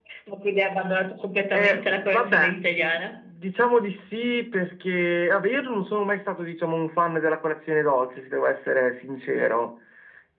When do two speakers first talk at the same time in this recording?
1.5 s

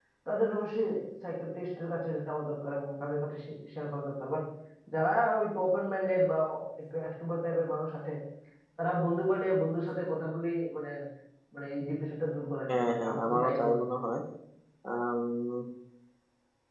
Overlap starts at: 12.7 s

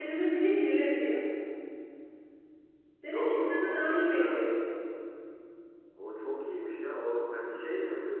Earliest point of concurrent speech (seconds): 3.1 s

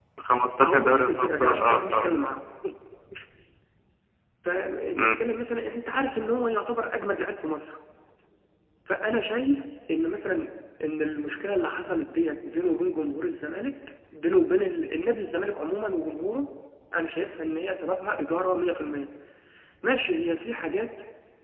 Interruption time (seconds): 0.6 s

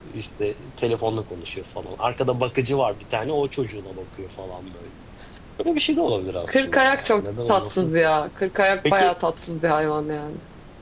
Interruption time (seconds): 6.5 s

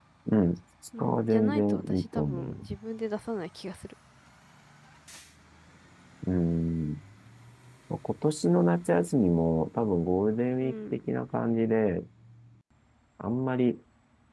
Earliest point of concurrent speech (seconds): 1.0 s

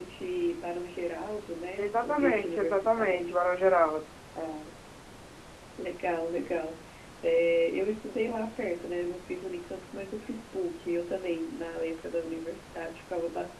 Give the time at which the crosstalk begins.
1.8 s

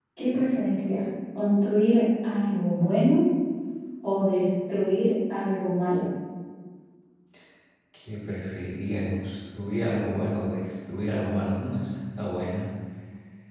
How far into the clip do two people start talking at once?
none

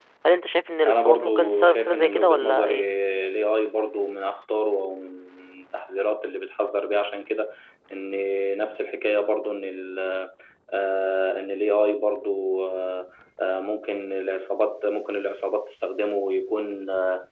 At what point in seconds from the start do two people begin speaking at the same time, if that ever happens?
0.9 s

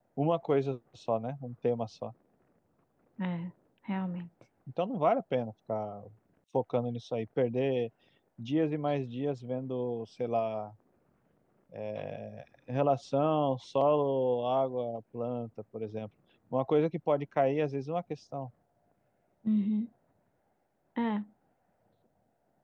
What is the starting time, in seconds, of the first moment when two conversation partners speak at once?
none

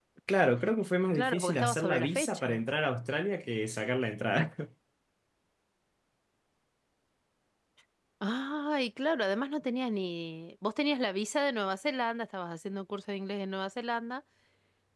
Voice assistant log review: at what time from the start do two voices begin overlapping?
1.1 s

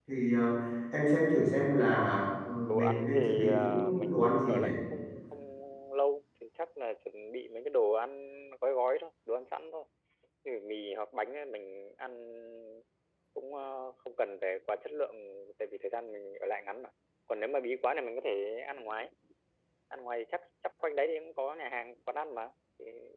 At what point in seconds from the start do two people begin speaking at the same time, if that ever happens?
2.7 s

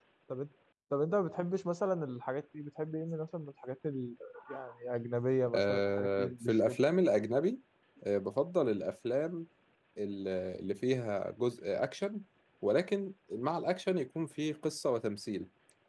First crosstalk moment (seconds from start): 5.5 s

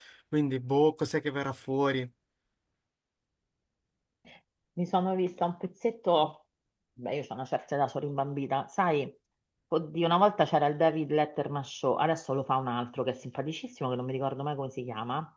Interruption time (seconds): none

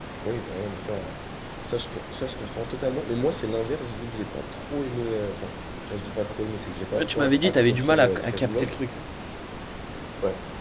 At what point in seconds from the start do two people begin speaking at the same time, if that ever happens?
6.9 s

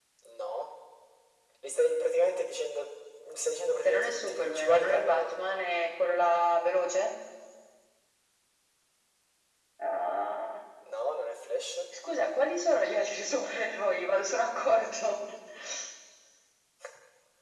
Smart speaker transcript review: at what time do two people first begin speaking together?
3.8 s

